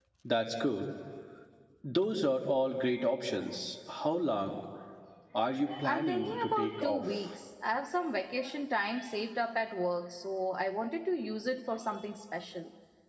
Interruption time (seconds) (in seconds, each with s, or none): 5.8 s